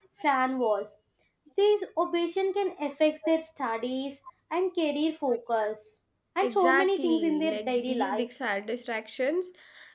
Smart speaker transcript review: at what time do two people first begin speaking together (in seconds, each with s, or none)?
6.4 s